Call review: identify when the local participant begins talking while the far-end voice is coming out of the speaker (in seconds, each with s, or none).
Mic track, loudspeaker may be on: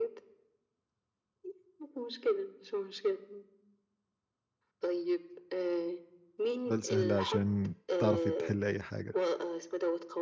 6.7 s